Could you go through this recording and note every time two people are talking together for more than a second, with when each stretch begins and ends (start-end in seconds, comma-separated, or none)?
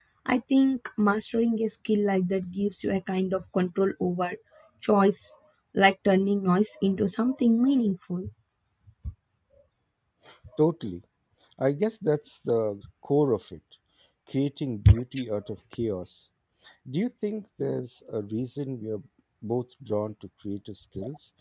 none